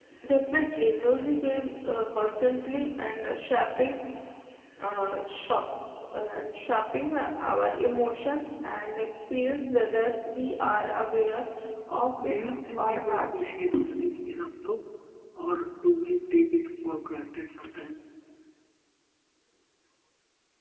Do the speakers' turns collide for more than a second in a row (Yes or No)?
Yes